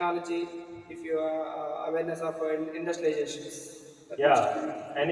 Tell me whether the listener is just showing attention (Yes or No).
No